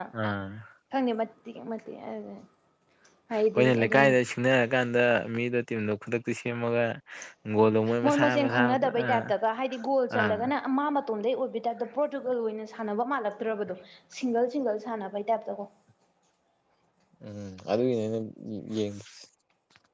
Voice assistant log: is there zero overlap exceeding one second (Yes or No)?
No